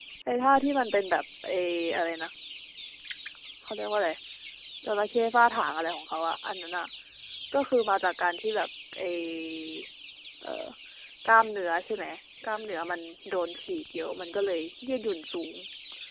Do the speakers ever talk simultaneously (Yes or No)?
No